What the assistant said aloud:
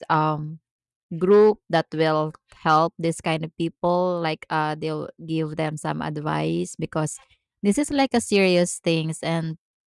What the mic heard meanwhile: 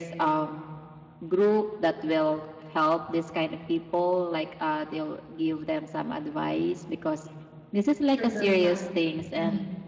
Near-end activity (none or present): present